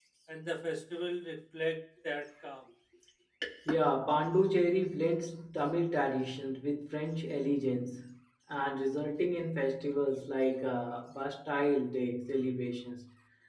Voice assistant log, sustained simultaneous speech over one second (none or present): none